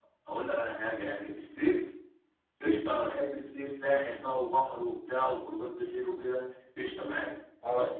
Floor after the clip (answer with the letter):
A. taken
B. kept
B